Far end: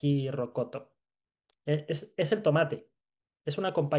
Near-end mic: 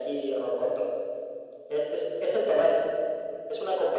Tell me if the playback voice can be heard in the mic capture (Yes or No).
Yes